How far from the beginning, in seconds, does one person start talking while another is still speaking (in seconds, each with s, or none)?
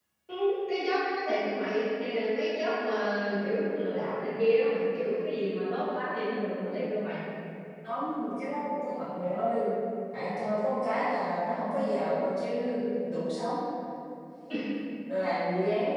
none